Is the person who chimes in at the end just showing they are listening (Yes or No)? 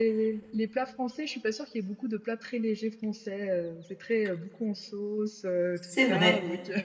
No